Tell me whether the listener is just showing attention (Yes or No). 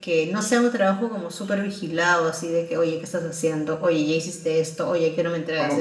No